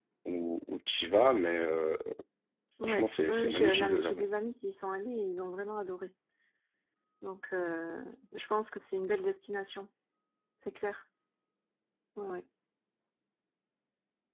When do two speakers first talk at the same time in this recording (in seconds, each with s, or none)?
2.8 s